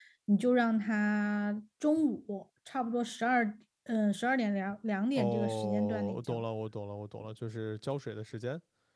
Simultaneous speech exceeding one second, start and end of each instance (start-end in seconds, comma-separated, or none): 5.2-6.4